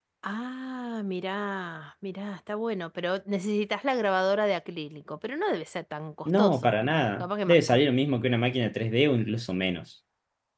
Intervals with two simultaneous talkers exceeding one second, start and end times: 6.2-7.6

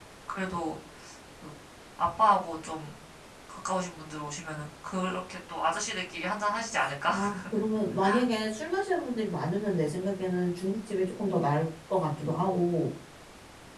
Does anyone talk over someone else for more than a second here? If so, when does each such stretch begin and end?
none

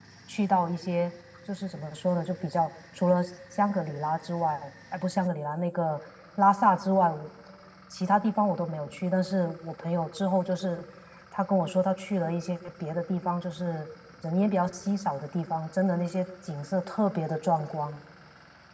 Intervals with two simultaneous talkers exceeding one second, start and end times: none

